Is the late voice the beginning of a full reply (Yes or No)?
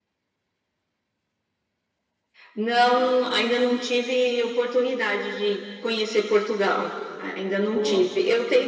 No